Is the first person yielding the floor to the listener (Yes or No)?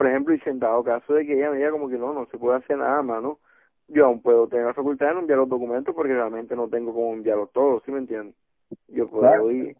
Yes